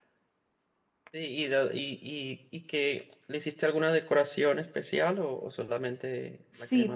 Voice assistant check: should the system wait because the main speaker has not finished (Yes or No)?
No